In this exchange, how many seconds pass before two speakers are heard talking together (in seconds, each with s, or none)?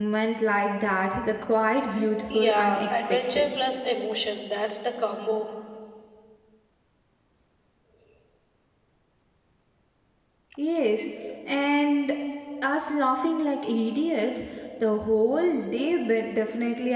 2.3 s